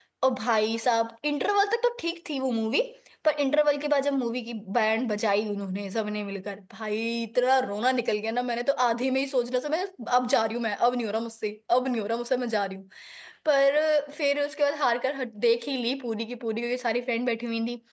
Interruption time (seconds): none

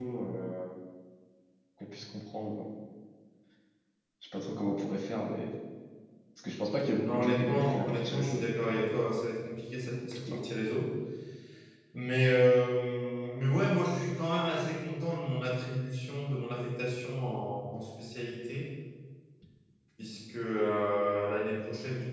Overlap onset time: 7.1 s

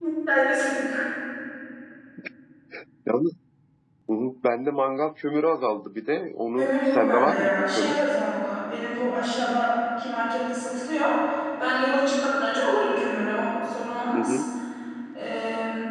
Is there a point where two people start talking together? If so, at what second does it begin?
6.6 s

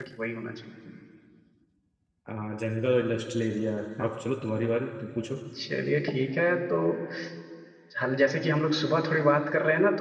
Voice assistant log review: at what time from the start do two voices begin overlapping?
none

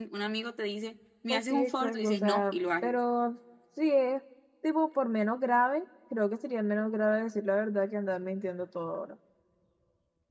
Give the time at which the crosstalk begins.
1.3 s

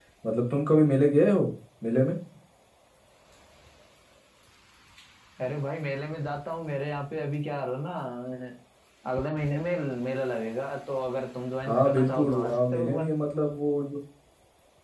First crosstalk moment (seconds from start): 11.7 s

